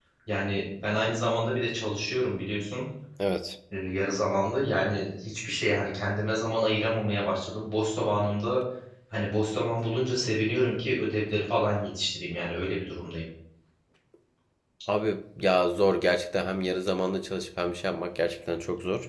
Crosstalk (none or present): none